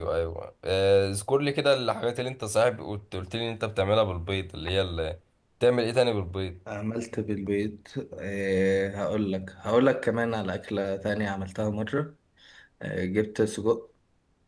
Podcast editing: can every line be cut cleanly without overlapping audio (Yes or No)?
Yes